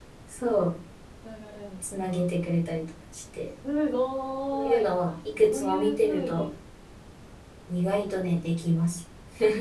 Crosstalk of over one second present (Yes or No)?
Yes